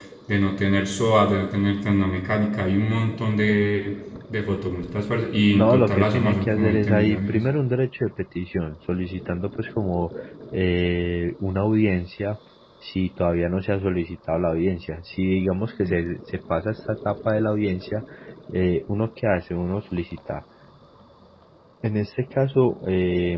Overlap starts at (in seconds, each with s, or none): 5.5 s